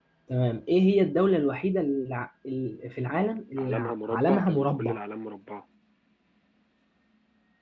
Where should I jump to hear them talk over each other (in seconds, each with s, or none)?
3.6 s